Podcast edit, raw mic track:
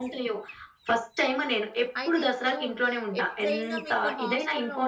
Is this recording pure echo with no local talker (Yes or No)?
No